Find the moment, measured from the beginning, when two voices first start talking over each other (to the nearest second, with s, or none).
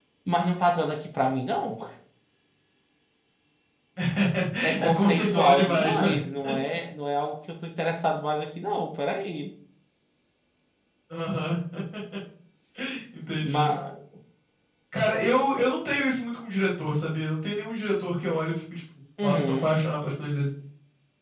5 s